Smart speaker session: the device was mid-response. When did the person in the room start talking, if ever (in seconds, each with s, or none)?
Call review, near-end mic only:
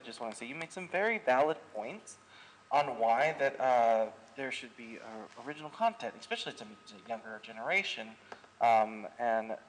none